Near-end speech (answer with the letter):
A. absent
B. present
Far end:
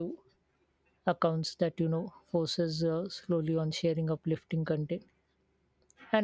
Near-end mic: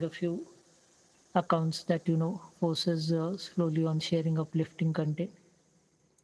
A